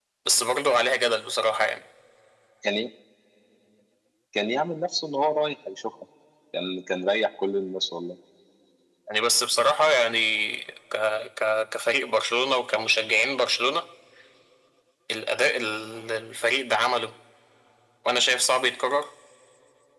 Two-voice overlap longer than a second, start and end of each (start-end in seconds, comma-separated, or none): none